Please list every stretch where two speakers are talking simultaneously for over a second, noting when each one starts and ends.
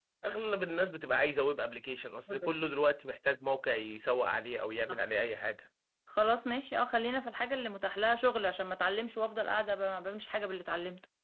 none

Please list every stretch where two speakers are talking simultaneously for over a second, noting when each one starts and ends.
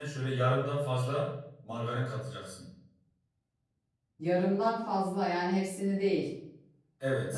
none

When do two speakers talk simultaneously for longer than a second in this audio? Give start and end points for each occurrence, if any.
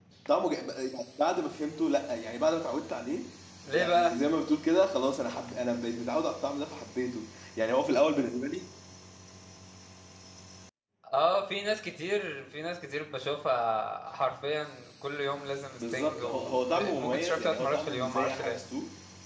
15.8-18.6

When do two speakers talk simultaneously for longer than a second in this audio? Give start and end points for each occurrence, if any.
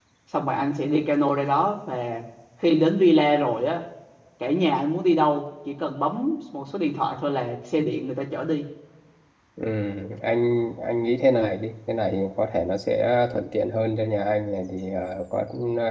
none

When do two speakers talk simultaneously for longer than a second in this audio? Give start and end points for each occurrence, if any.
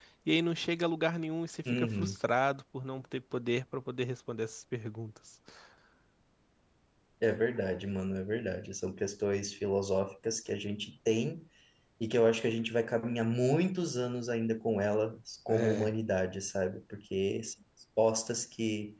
none

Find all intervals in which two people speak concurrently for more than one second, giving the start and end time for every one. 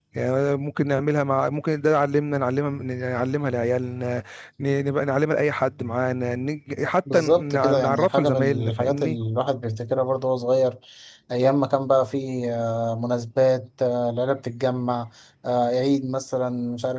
7.1-9.2

